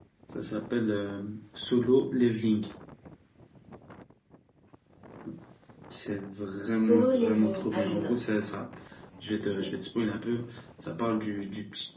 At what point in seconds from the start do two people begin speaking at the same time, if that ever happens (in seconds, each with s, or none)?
6.8 s